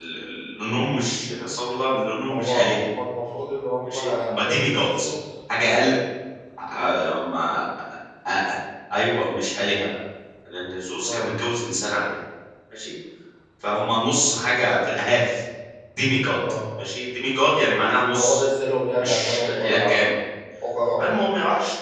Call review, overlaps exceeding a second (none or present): present